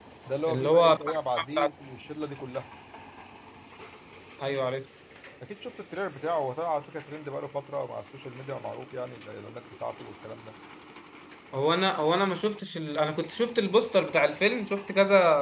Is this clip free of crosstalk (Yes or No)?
No